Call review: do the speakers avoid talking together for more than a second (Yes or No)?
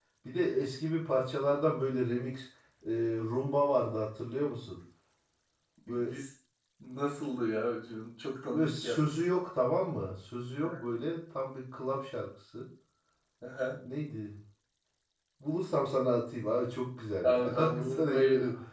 No